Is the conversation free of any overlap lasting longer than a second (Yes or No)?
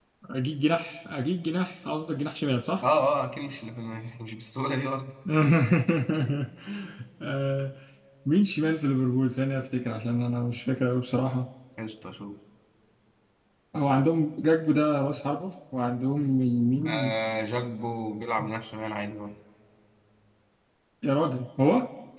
Yes